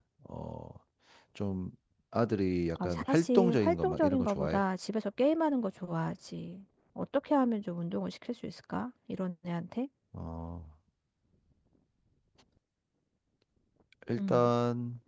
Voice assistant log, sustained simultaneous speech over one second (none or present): present